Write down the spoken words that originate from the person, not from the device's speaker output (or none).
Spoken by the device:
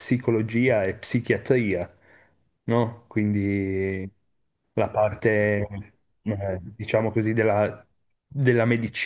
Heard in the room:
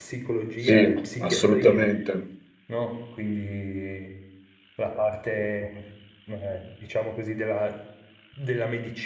sì, assolutamente.